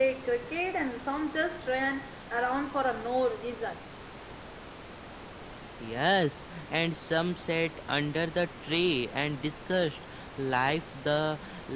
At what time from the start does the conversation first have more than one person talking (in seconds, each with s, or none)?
none